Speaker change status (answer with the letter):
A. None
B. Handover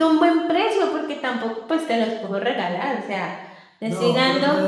B